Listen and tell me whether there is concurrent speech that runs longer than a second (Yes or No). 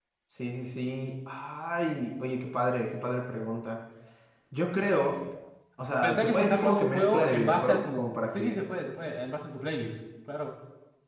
Yes